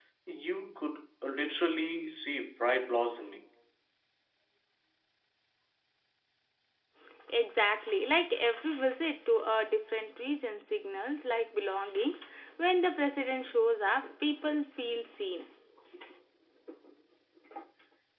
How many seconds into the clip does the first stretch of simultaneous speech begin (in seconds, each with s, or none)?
none